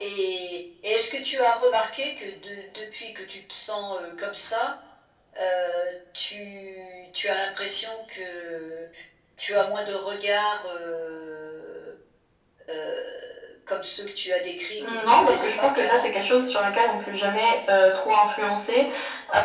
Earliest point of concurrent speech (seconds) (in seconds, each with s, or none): 14.8 s